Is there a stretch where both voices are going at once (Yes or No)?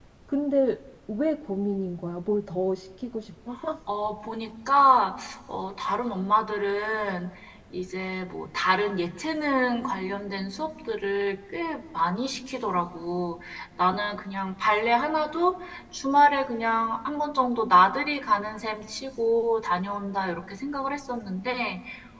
No